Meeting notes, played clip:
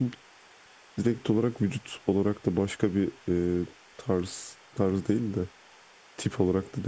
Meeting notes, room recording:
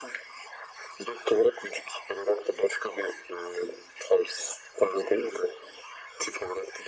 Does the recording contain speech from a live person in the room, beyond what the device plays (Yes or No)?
No